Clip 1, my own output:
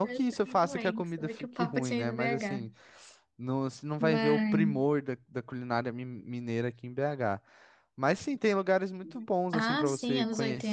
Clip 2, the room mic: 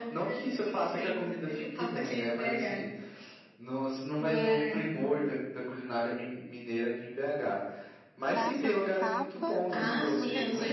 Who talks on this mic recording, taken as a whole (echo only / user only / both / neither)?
both